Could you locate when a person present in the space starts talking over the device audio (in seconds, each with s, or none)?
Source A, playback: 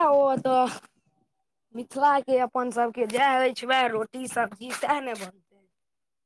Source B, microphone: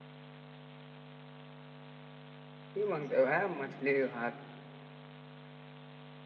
2.7 s